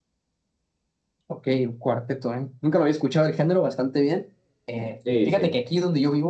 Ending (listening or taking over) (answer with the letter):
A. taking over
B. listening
B